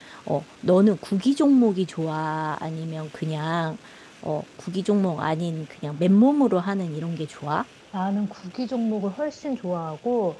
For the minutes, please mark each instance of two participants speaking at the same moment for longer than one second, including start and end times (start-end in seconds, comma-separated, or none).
none